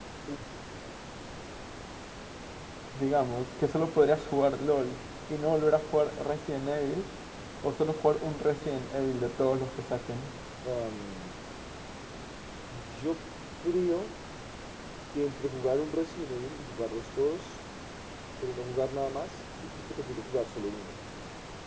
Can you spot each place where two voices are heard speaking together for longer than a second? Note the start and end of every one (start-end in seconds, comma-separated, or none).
none